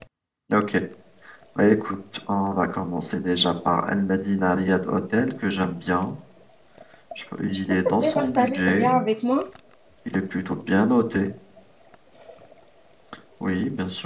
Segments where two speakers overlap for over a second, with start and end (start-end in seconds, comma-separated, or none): 7.7-9.0